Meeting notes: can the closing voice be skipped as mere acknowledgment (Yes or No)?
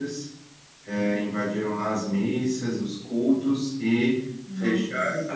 Yes